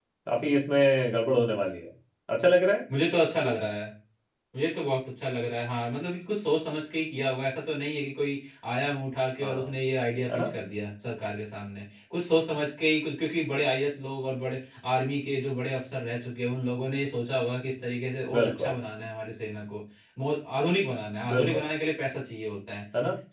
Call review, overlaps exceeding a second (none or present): none